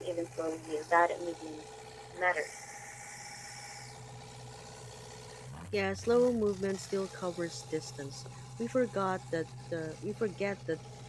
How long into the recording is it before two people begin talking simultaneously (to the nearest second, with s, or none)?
none